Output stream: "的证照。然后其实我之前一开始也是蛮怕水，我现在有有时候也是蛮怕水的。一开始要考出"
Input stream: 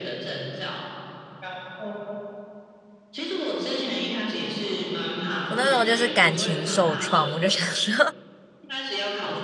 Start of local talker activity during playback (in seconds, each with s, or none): 5.5 s